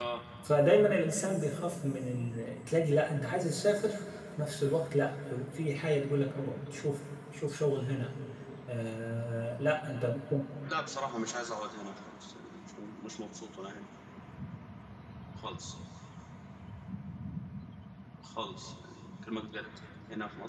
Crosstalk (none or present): none